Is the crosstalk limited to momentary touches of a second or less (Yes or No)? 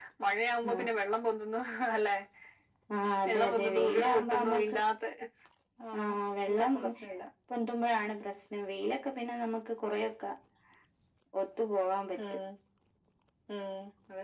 No